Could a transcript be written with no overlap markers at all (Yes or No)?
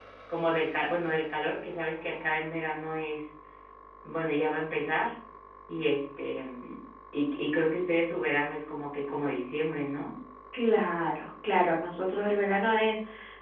Yes